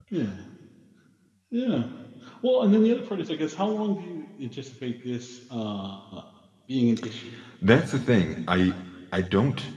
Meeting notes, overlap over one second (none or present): none